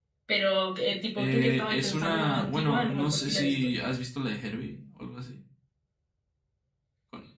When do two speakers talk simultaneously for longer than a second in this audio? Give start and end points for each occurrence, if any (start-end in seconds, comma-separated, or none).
1.2-3.5